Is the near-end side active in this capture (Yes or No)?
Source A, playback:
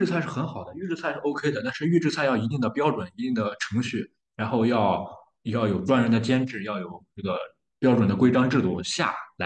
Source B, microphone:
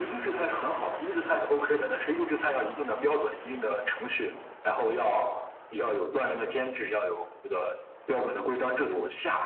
No